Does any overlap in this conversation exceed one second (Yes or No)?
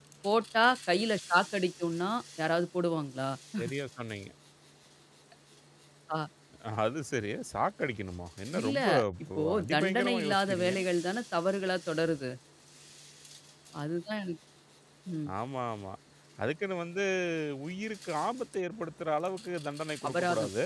Yes